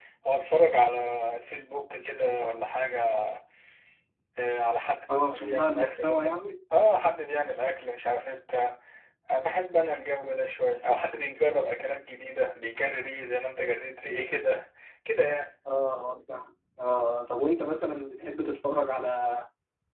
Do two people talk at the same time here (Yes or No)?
Yes